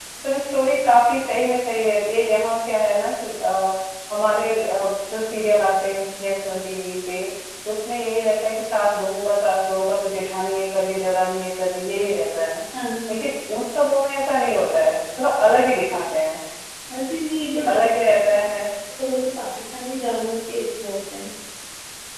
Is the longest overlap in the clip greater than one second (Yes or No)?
No